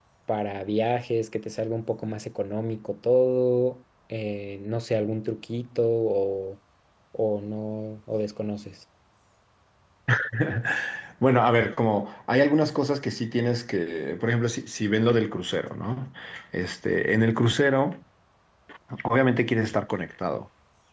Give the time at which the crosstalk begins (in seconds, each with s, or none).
none